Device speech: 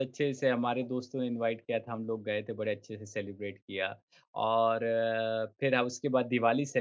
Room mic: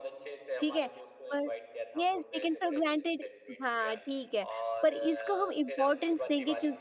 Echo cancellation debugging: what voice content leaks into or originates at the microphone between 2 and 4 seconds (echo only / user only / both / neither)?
both